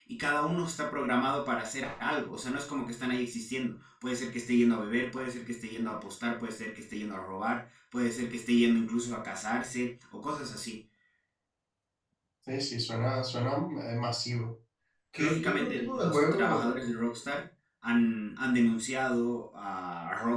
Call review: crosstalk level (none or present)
present